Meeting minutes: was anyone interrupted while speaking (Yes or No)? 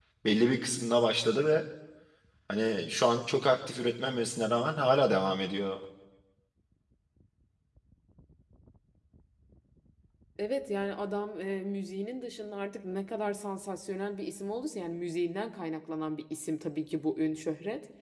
No